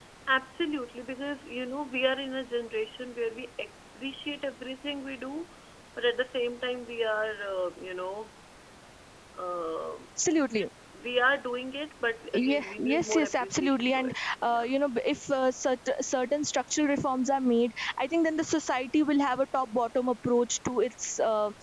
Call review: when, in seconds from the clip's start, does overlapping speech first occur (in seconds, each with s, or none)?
12.3 s